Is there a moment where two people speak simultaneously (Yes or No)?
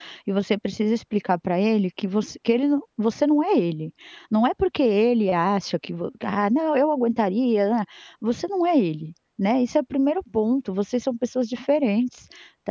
No